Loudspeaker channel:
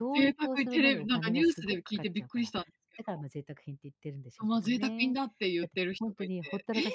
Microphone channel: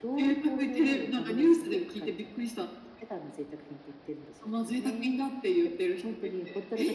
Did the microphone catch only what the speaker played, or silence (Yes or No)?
Yes